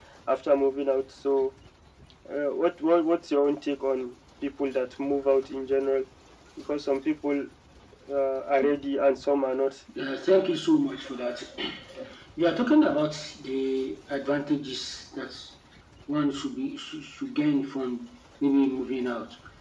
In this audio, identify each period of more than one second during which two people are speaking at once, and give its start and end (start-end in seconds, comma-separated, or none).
none